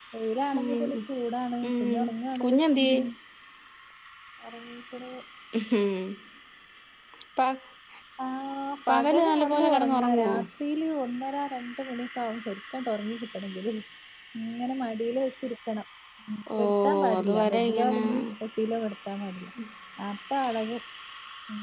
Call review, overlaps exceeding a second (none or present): present